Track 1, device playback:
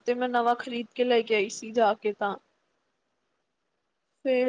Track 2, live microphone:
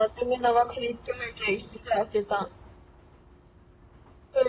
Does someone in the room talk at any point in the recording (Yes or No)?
No